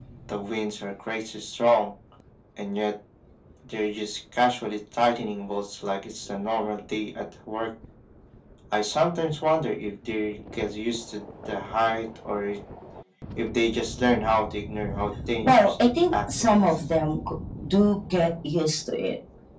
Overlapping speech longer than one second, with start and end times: 15.4-16.8

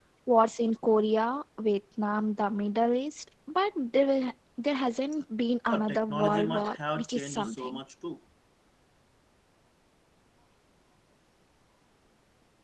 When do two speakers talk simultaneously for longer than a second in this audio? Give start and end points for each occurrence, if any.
5.7-7.8

